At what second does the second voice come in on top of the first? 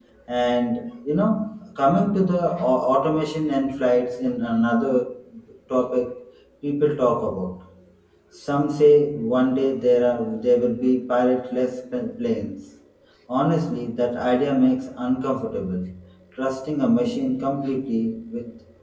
none

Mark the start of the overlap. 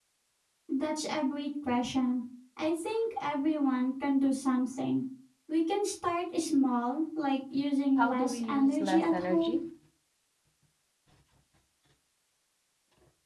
8 s

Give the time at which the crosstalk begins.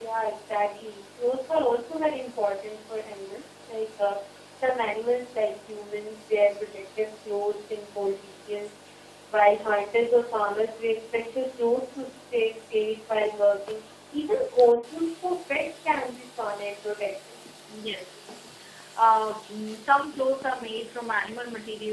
none

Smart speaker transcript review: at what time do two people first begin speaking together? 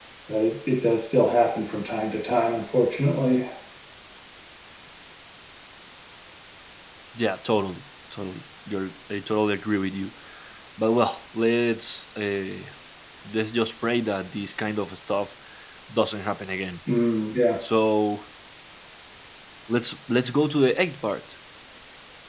none

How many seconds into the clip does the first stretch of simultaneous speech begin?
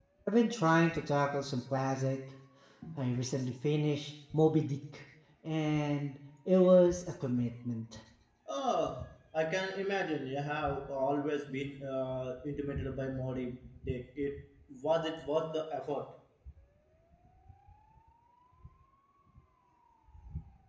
none

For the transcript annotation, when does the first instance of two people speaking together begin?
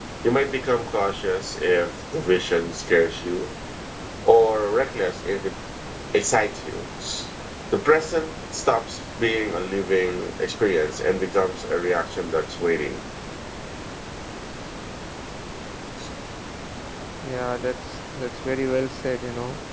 none

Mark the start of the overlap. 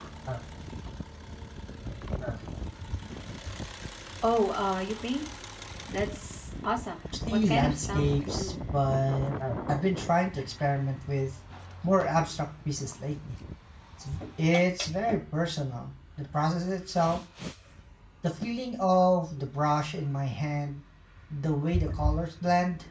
7 s

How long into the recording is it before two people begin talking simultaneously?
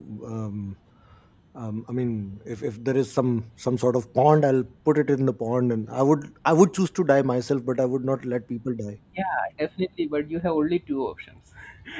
none

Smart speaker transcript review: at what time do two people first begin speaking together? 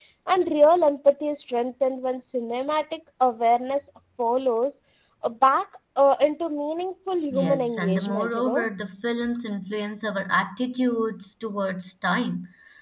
7 s

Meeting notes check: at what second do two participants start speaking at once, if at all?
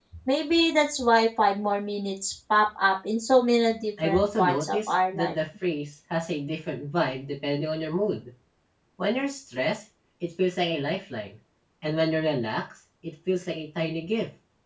4 s

